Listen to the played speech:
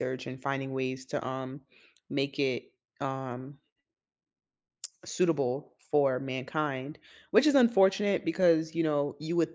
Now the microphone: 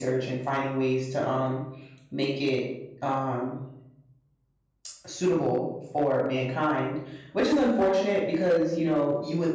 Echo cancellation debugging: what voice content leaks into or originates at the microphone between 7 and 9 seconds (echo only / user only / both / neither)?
echo only